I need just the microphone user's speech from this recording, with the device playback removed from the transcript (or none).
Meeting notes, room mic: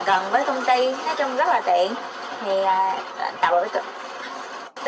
none